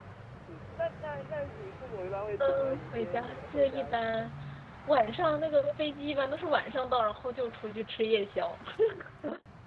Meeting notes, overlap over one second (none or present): present